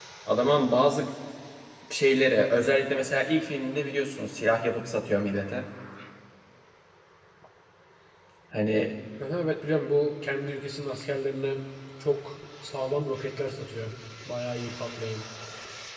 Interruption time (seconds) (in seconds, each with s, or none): none